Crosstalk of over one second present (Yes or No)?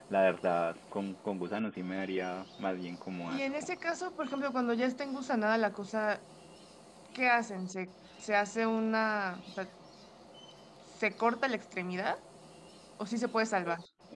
No